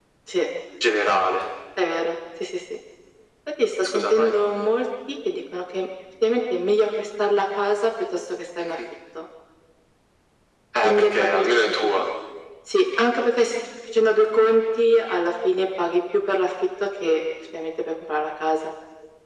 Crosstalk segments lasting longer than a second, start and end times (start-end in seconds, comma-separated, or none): 10.8-12.0